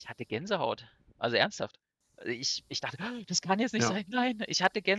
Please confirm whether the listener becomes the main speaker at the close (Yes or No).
No